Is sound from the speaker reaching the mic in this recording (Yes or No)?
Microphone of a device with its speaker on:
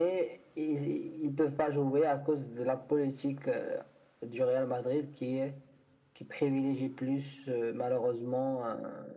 Yes